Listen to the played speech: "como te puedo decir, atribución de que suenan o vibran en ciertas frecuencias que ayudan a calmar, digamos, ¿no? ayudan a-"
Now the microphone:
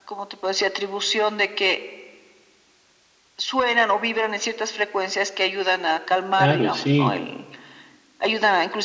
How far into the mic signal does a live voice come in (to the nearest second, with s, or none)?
6 s